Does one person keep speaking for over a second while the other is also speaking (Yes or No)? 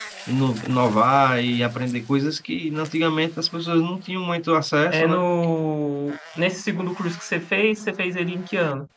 No